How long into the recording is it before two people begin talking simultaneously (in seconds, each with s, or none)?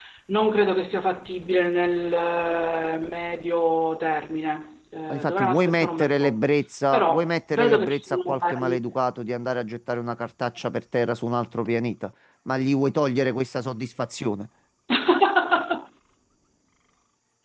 5.1 s